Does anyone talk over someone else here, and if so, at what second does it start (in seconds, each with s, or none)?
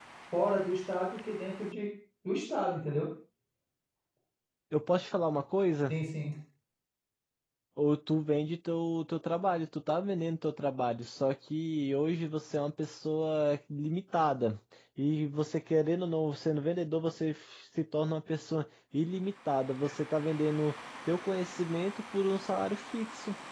none